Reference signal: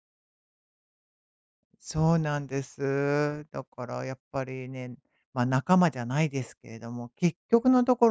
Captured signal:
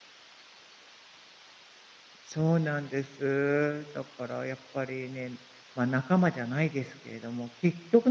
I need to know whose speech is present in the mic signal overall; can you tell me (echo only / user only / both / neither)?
echo only